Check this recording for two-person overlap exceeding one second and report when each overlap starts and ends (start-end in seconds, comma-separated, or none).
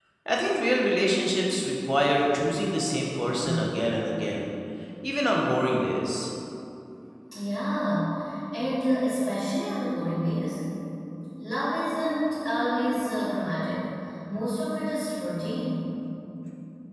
none